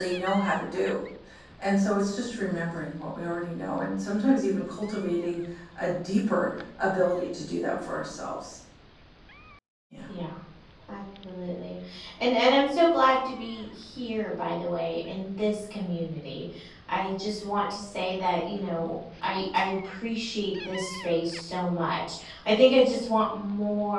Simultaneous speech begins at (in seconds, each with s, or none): none